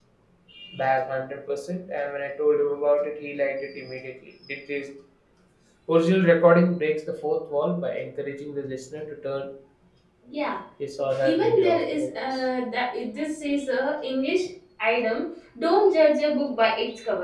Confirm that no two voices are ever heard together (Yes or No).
No